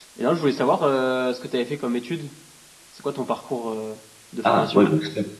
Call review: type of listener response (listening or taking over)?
taking over